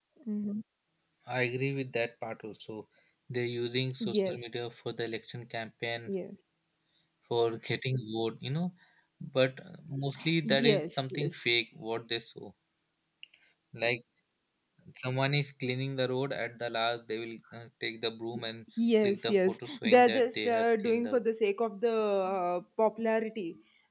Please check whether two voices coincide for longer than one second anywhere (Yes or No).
Yes